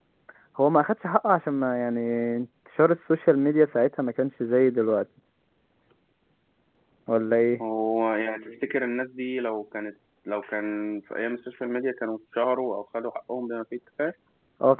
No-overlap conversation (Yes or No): Yes